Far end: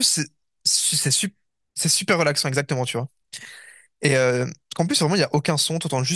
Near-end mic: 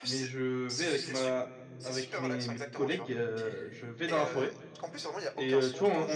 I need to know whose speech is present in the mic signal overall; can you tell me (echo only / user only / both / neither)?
both